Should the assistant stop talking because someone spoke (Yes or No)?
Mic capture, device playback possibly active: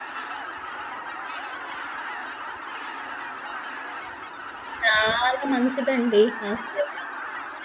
Yes